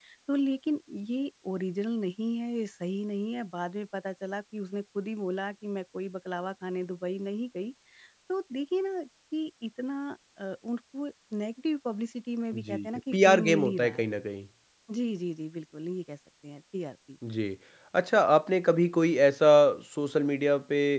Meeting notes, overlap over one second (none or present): present